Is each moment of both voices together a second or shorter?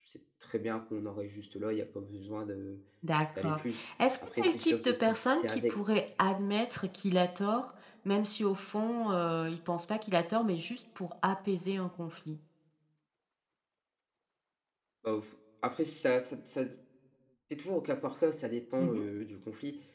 No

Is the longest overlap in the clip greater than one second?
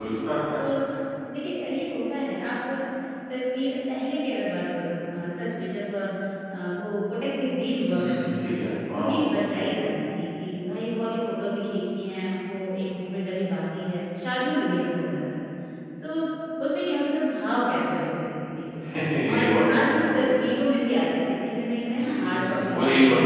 Yes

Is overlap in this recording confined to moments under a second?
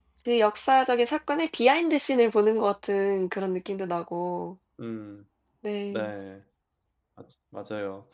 Yes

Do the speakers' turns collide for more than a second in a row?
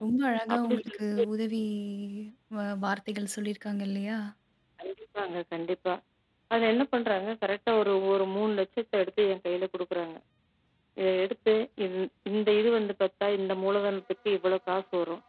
No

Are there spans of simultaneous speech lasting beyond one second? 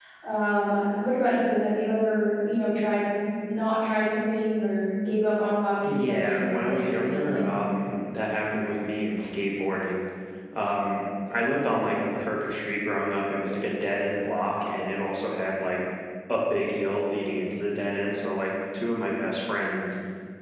Yes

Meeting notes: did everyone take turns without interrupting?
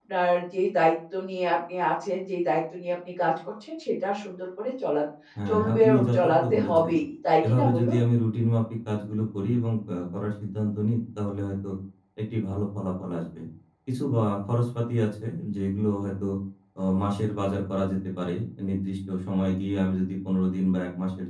No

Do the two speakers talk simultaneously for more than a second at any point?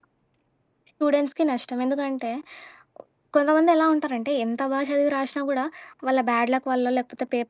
No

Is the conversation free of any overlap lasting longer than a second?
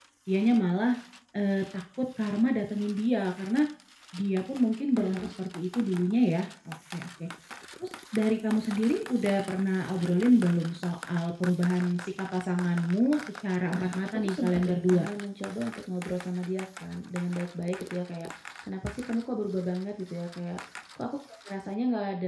No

